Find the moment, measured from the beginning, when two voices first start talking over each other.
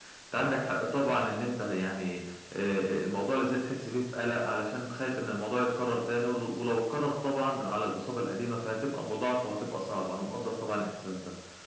none

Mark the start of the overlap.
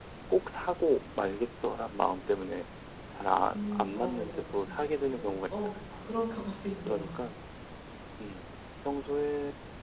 3.5 s

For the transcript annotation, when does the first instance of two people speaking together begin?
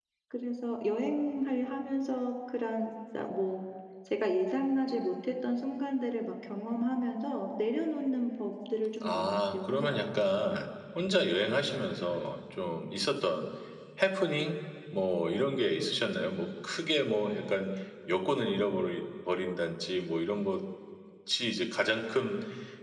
9.0 s

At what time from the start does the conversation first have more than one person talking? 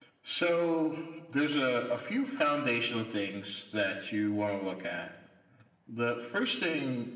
none

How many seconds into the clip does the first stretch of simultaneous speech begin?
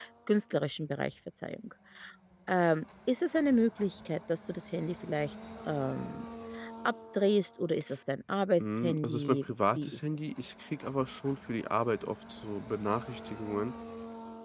8.6 s

